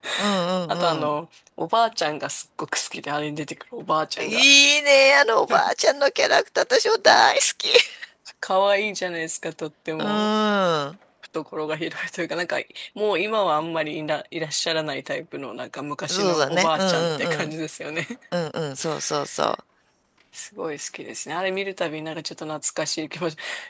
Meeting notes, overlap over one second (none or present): present